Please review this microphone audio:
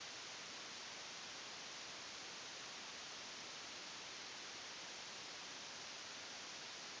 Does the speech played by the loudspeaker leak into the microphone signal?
No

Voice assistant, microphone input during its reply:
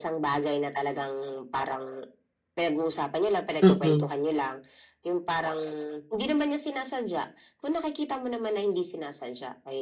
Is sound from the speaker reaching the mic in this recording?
Yes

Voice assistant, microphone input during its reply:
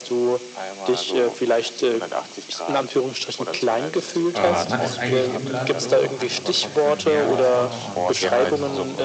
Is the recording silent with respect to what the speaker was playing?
No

